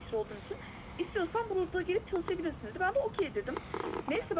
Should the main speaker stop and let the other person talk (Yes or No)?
No